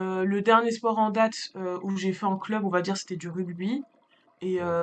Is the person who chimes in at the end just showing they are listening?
Yes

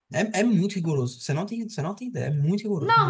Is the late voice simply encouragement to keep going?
No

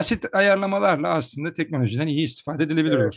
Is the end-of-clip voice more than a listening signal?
Yes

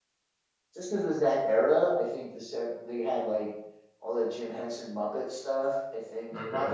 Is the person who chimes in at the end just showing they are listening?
Yes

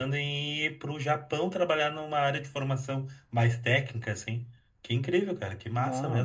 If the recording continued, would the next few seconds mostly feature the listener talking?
Yes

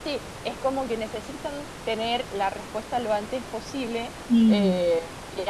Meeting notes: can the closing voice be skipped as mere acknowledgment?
Yes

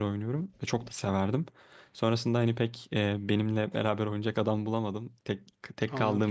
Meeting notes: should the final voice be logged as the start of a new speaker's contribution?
No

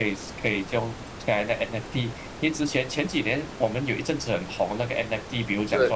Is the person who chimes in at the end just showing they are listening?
Yes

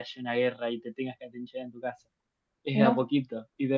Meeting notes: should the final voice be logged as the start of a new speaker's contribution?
No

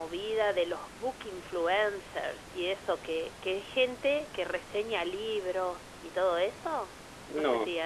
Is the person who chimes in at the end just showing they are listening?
Yes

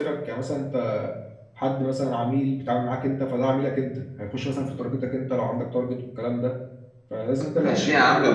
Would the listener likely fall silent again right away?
No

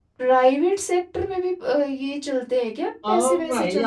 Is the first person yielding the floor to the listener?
Yes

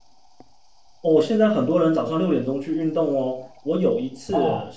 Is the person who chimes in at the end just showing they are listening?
Yes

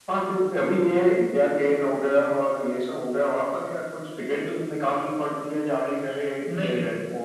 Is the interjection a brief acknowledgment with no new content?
Yes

